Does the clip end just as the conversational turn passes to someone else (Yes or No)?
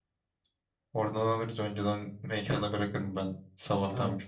Yes